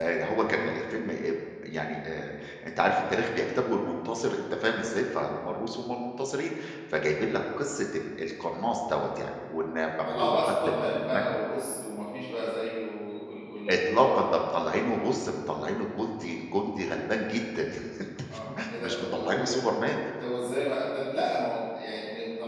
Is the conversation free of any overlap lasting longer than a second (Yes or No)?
No